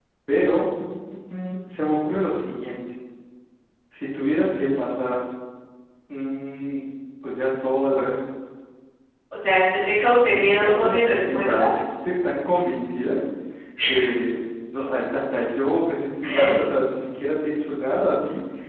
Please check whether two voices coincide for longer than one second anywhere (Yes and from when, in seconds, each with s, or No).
Yes, from 10.3 s